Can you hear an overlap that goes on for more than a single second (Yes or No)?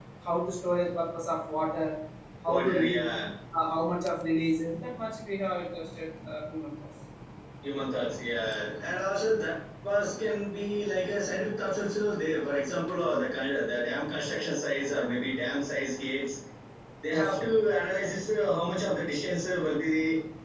No